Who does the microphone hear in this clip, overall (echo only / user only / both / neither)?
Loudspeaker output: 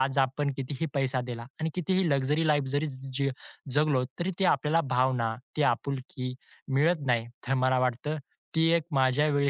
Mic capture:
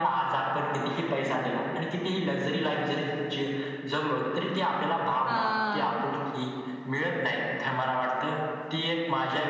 both